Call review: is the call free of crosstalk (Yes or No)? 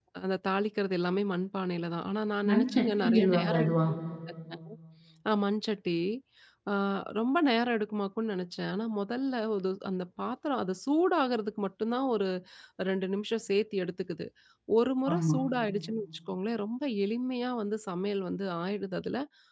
No